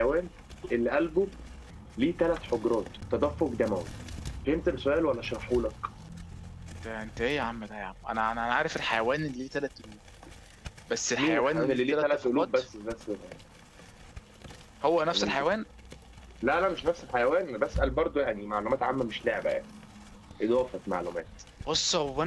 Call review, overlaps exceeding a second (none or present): present